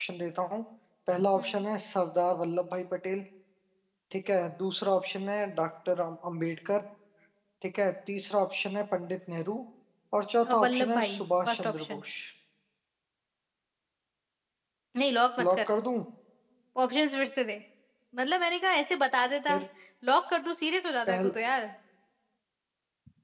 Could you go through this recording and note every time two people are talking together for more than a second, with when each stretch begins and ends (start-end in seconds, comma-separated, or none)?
10.4-12.0